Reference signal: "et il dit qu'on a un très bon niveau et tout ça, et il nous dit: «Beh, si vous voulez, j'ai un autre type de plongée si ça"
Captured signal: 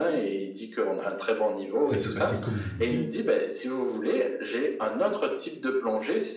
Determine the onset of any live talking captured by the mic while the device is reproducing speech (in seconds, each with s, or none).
1.9 s